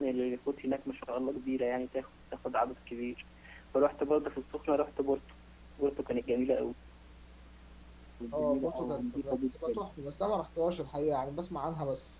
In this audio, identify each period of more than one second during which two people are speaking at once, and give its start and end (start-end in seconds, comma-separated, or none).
8.3-9.8